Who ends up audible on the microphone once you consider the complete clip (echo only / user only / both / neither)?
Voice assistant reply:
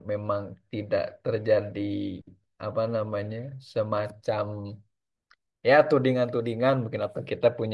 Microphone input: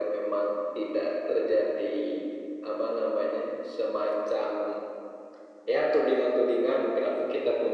echo only